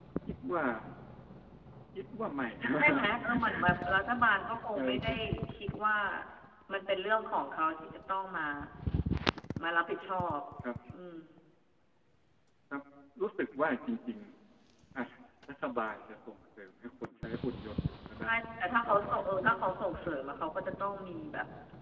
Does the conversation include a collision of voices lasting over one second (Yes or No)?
Yes